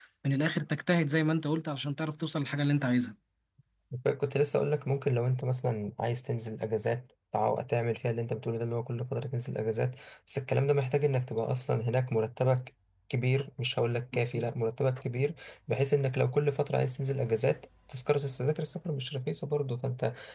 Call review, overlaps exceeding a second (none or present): none